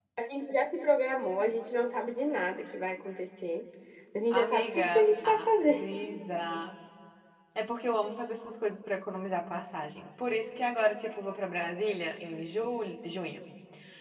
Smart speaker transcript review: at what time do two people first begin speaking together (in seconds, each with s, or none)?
4.3 s